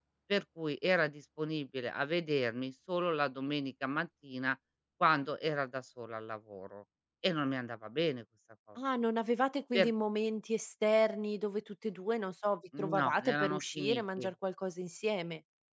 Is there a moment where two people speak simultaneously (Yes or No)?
Yes